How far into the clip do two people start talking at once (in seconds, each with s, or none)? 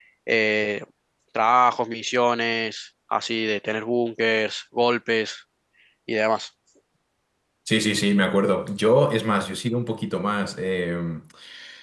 none